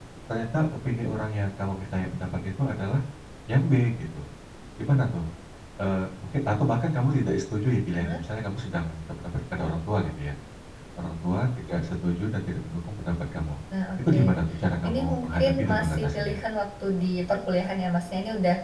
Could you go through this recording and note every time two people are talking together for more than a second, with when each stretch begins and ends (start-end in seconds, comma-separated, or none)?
14.8-16.4